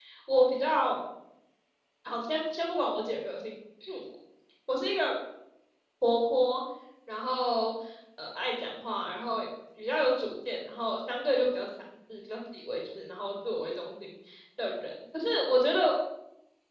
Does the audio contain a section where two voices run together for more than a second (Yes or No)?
No